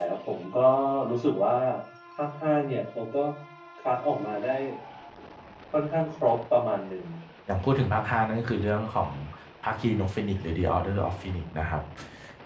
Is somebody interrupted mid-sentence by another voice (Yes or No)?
No